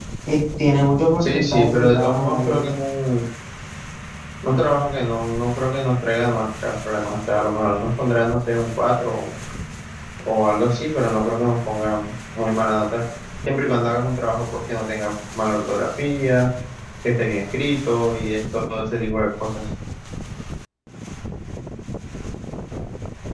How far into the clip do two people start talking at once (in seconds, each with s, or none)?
1.2 s